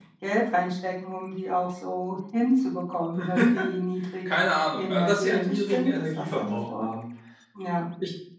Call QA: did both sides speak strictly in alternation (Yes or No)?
No